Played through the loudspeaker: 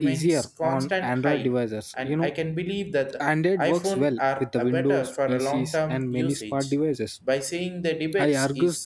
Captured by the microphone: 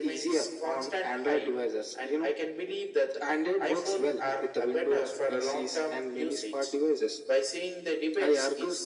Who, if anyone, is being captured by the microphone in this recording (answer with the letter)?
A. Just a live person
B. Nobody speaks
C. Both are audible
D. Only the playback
D